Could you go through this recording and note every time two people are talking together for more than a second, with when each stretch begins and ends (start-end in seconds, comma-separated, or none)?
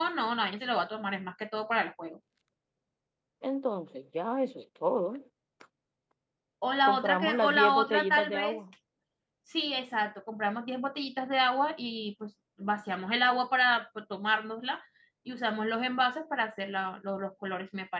6.8-8.6